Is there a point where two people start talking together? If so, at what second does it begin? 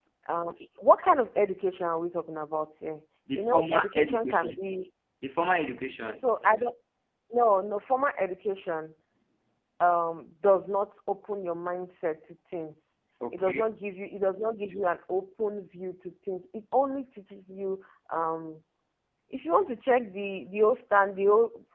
3.3 s

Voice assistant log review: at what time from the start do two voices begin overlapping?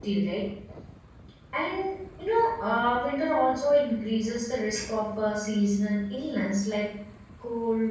none

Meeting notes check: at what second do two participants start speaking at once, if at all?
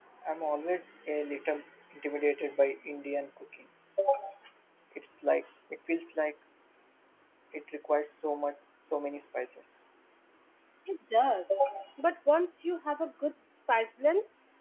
none

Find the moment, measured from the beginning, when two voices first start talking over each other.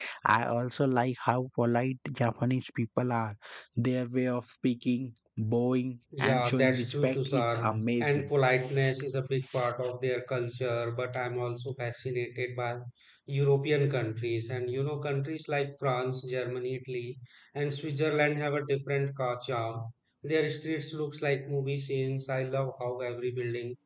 6.1 s

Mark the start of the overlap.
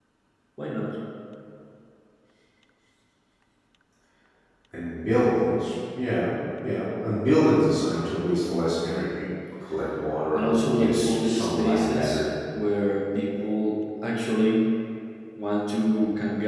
10.3 s

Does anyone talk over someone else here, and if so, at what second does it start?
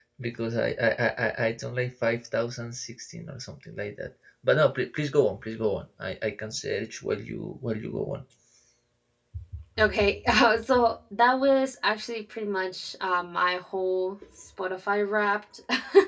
none

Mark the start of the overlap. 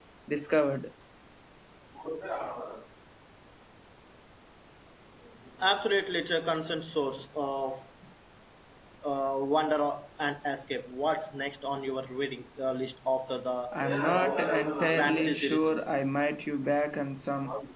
13.7 s

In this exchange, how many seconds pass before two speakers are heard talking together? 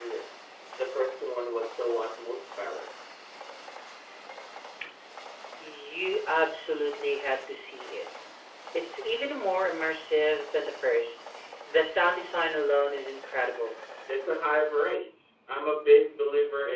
none

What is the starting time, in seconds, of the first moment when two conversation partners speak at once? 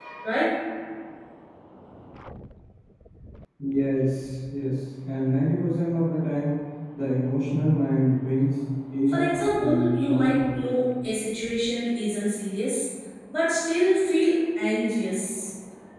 9.1 s

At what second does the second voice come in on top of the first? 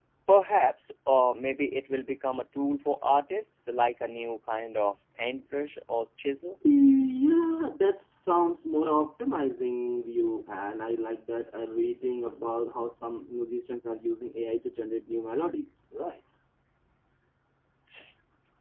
none

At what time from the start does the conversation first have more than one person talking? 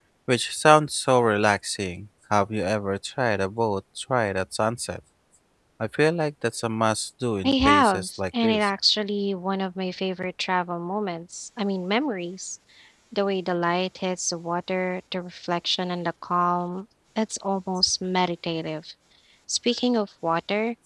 7.4 s

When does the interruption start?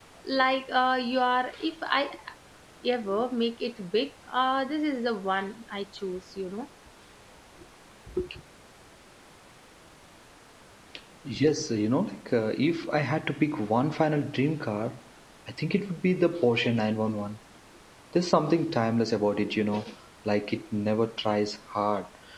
none

